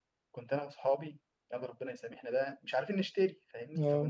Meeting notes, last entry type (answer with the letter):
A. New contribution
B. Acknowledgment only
B